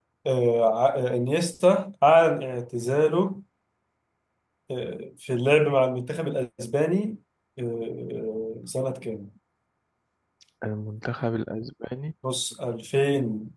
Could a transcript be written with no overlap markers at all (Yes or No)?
Yes